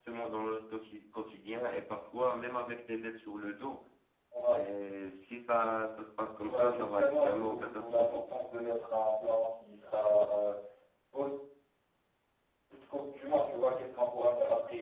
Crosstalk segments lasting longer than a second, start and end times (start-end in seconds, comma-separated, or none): 6.4-8.2